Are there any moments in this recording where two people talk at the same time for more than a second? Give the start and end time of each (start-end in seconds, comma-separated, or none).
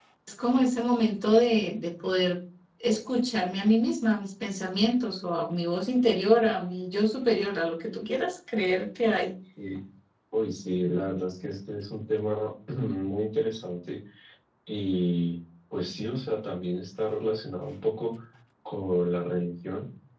none